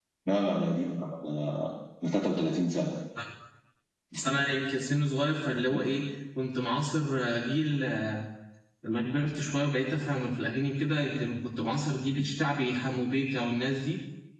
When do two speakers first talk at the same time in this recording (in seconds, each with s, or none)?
none